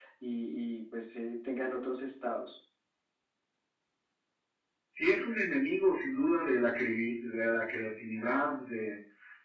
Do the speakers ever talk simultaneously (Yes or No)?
No